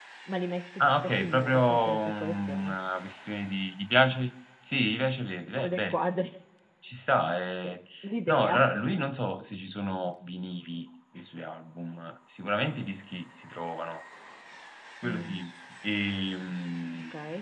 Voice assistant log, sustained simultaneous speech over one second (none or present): present